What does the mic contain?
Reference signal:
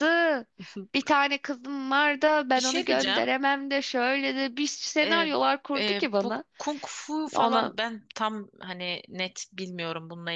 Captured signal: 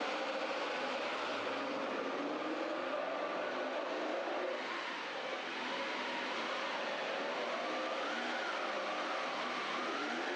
neither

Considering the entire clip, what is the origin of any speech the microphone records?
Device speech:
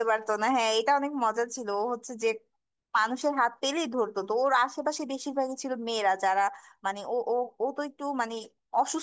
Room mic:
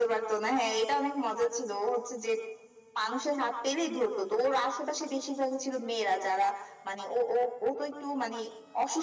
echo only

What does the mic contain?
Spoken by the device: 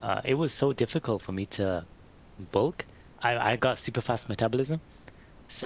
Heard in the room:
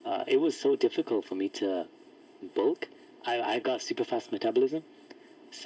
echo only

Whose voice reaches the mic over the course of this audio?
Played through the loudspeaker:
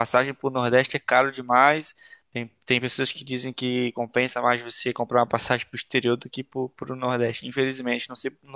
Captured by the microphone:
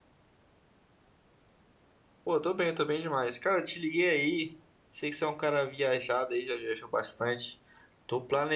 user only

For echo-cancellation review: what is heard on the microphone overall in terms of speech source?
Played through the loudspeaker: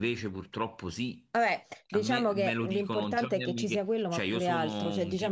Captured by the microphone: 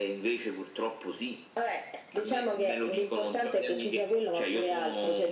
echo only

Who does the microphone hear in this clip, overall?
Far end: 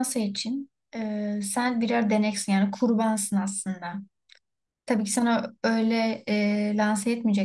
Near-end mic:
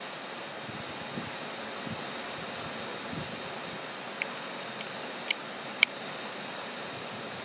neither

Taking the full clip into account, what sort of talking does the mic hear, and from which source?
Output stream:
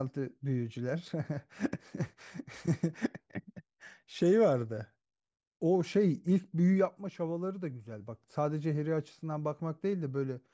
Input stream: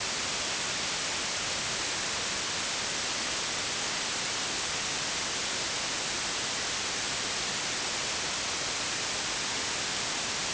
neither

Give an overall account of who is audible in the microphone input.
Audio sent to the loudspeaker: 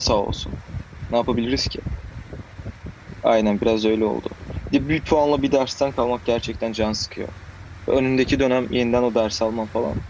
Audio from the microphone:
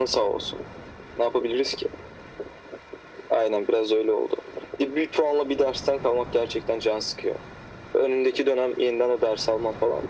echo only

